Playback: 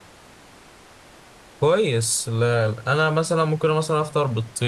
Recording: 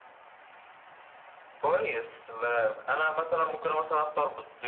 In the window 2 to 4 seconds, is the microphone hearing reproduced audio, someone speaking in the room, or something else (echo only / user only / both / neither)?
echo only